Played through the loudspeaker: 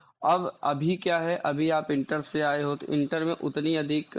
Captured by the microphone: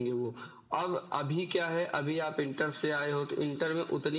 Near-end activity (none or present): none